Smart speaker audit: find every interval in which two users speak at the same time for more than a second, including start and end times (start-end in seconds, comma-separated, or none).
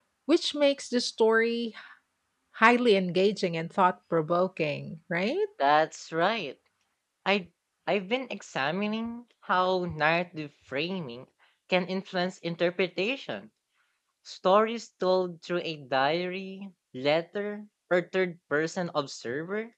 none